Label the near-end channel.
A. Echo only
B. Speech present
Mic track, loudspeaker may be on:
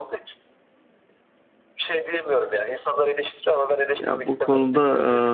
B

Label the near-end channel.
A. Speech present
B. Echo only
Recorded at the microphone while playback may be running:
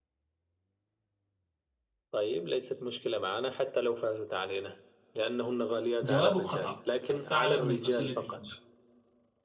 A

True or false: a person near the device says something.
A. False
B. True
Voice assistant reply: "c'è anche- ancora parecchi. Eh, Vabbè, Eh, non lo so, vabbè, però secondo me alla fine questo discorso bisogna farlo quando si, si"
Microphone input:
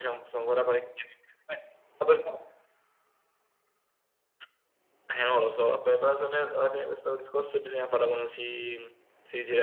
A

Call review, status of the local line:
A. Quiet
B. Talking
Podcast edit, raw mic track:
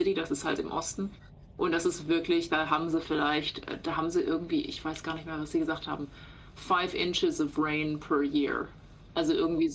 A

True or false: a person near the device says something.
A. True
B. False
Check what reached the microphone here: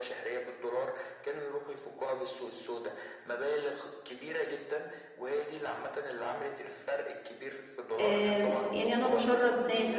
A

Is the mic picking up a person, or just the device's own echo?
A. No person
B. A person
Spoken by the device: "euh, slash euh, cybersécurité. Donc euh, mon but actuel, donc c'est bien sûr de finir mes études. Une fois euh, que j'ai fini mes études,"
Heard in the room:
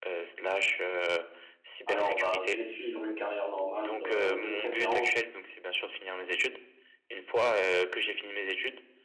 B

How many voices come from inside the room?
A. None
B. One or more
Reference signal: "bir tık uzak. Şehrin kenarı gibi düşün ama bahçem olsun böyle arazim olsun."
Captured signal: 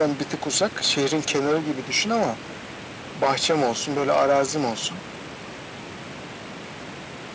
A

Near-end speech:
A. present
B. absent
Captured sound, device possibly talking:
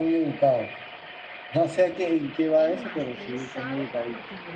A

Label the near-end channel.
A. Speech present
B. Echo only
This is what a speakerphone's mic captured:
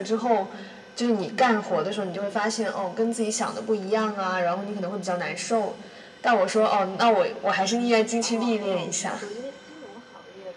A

